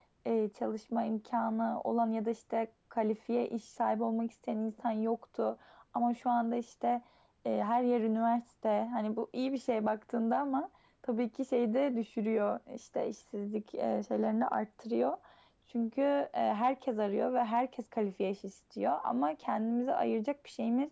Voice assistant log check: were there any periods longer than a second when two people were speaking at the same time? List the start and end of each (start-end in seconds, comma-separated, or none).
none